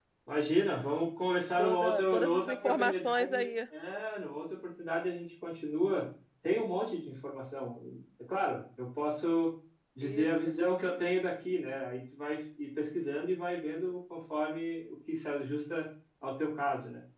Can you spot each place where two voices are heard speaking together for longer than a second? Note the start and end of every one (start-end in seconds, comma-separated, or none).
1.6-3.5